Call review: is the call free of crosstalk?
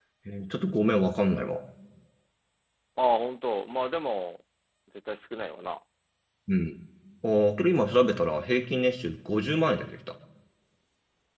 Yes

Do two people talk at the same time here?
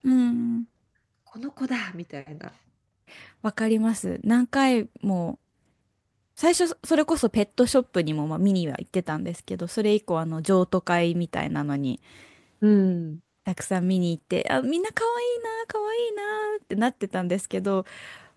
No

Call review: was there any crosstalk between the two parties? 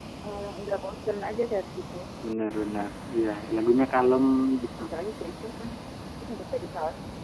No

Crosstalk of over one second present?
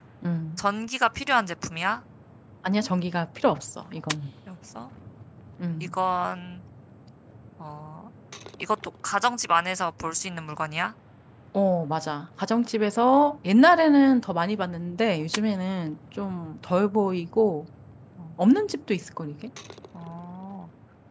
No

